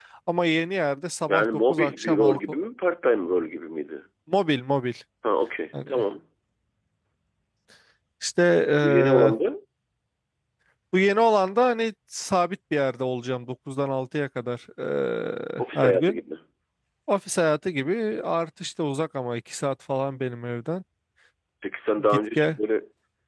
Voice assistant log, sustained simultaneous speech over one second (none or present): present